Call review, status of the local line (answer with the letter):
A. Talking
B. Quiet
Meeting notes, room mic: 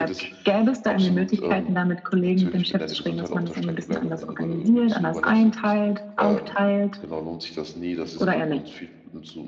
A